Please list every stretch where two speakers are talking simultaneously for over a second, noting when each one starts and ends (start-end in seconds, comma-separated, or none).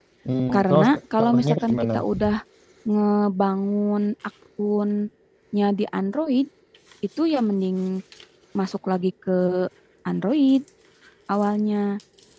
0.5-1.8